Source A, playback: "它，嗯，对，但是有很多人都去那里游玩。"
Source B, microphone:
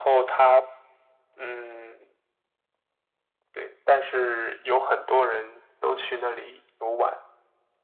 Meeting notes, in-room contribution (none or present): none